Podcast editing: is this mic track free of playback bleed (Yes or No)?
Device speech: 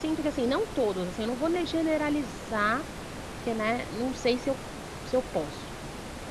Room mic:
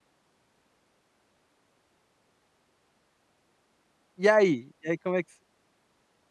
Yes